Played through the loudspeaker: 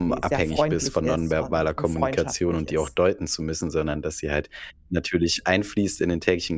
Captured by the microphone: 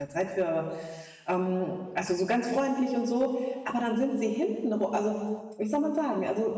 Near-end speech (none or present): present